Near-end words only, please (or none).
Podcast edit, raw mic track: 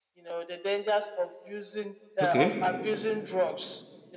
okay.